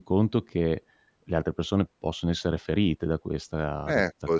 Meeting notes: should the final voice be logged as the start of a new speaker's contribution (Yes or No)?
Yes